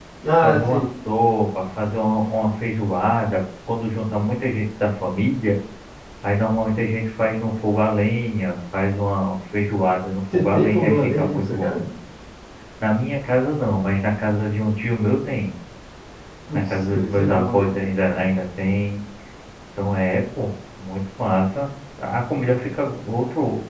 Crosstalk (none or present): present